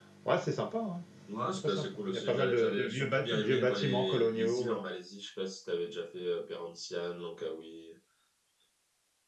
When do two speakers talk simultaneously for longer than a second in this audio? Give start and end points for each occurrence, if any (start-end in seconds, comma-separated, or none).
1.6-4.8